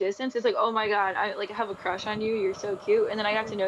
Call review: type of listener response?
listening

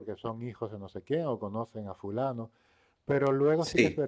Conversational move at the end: listening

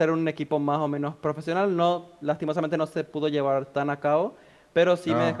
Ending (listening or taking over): listening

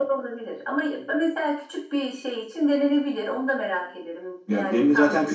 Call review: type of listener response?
taking over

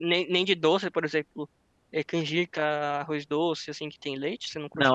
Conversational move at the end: taking over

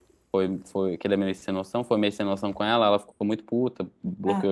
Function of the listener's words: listening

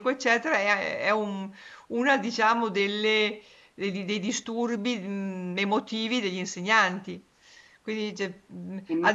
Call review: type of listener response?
listening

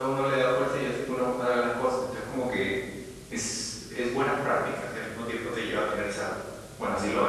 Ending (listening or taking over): taking over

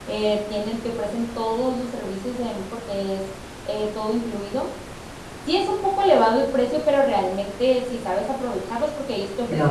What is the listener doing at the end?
listening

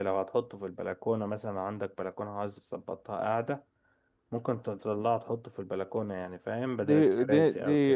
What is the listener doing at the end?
taking over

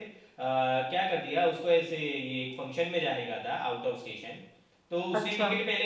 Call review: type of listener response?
listening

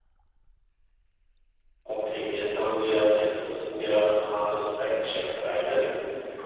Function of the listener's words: taking over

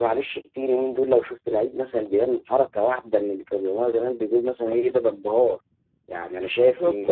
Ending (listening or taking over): taking over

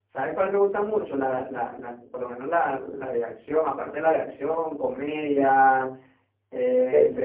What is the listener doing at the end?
listening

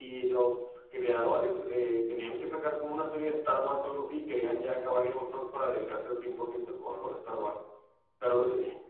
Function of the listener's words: listening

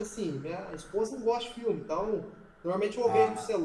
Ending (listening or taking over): listening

